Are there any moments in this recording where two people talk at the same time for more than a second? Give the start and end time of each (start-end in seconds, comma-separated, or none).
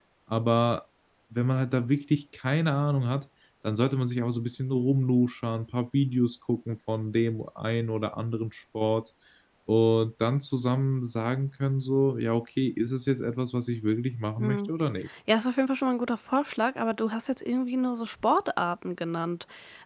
none